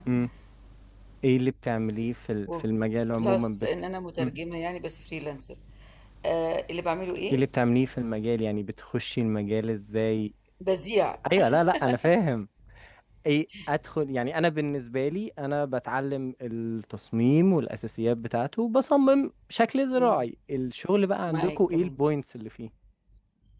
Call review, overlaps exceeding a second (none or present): present